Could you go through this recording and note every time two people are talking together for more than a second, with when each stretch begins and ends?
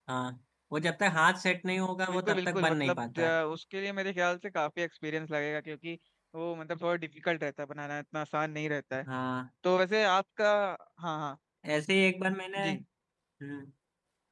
2.1-3.3

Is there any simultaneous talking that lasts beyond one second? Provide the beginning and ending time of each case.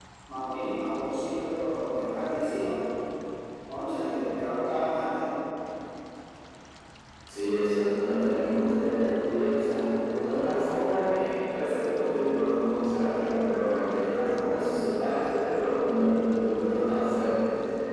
none

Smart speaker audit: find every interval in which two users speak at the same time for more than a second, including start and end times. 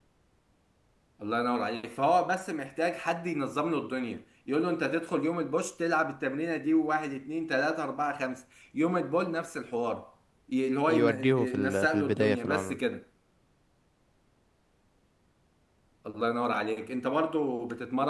10.9-12.8

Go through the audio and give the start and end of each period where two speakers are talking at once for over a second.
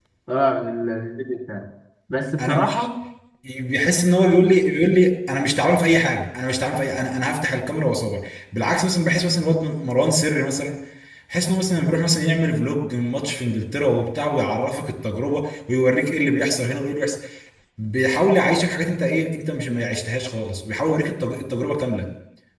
none

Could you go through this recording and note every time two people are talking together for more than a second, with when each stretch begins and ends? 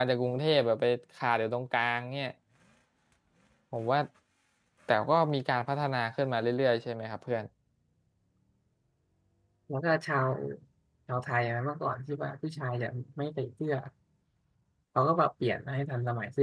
none

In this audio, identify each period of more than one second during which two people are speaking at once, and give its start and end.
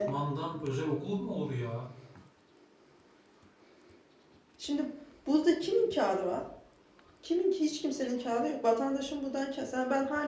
none

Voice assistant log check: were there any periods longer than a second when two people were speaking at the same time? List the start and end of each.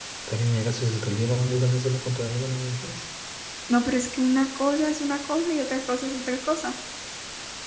none

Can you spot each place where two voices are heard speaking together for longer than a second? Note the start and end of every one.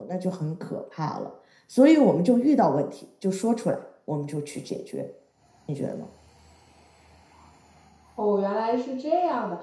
none

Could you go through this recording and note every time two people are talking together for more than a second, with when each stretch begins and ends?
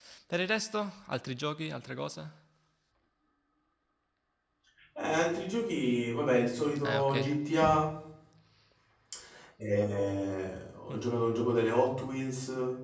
none

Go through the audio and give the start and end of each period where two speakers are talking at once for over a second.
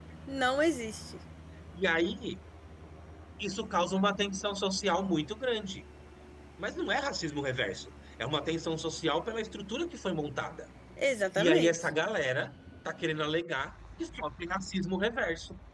none

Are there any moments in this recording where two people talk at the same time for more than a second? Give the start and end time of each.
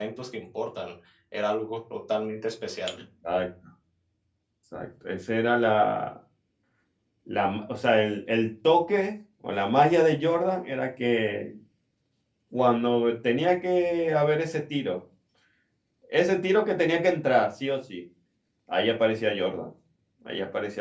none

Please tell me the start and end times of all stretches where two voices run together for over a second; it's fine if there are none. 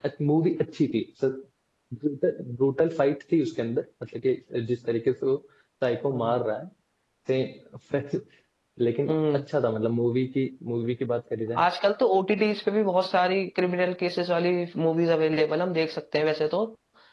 none

